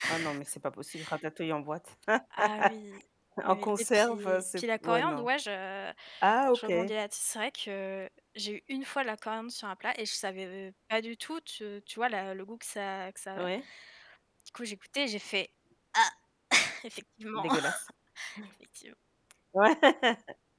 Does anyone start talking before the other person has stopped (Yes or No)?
Yes